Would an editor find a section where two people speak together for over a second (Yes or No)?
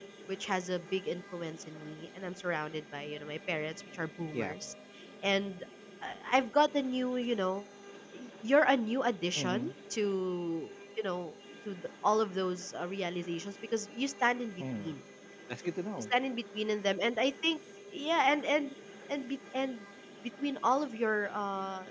No